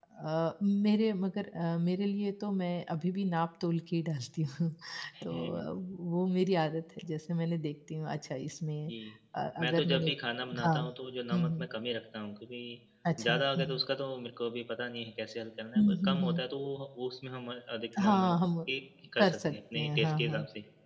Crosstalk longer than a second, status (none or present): present